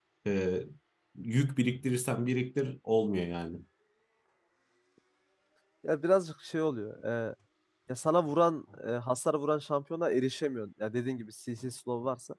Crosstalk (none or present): none